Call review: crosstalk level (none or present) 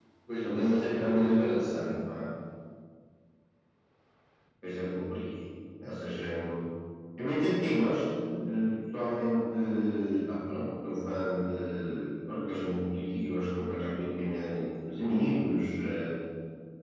present